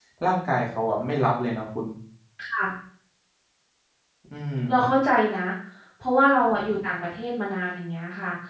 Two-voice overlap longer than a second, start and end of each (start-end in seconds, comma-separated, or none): none